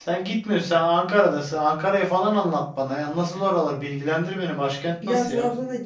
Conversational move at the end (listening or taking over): taking over